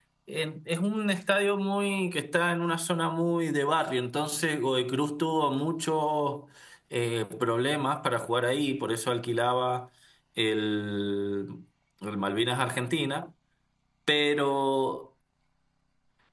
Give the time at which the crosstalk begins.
none

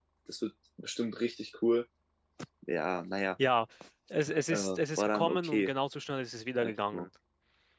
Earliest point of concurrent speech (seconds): 4.5 s

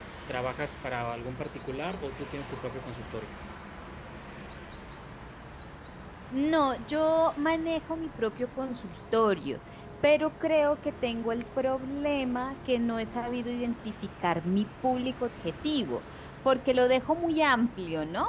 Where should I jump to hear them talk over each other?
none

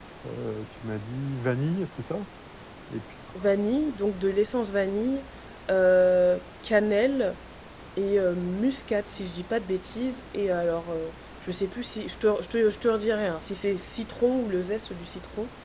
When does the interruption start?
none

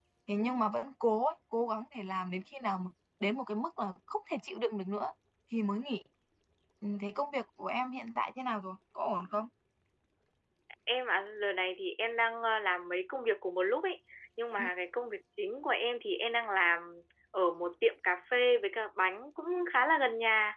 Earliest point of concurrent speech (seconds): none

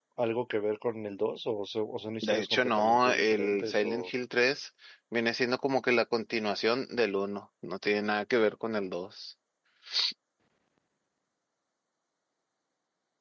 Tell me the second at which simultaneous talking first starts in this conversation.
2.2 s

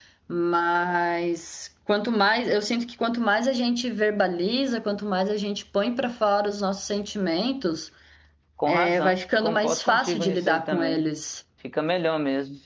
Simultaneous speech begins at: 8.7 s

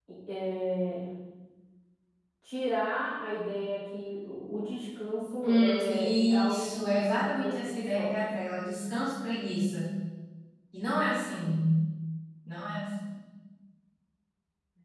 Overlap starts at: 5.4 s

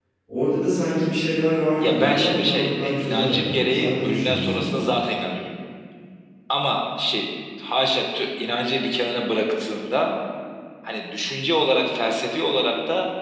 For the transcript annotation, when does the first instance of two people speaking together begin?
1.8 s

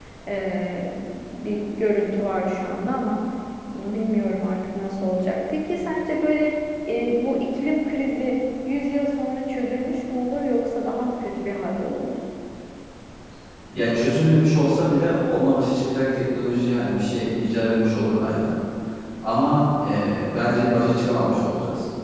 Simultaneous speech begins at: none

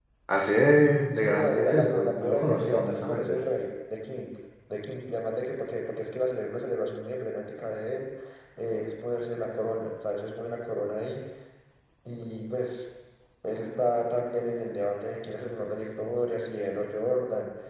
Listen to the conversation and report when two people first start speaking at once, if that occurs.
1.2 s

